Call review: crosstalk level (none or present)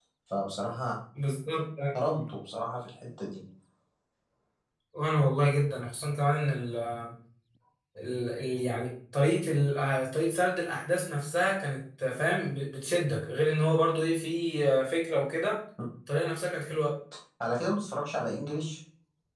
none